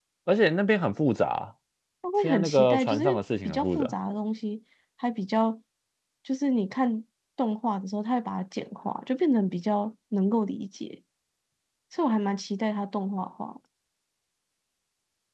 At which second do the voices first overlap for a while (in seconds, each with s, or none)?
2.2 s